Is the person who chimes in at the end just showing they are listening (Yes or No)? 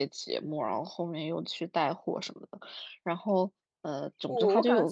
No